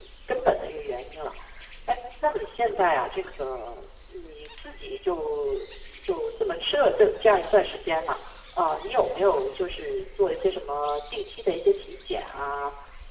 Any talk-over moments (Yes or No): No